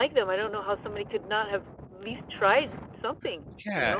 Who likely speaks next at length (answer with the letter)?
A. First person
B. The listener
B